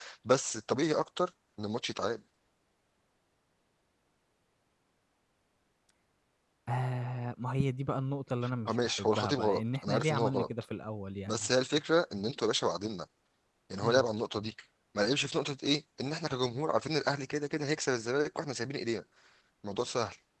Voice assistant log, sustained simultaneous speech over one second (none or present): present